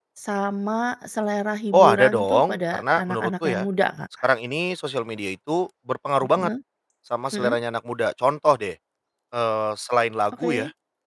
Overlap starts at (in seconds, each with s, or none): 1.7 s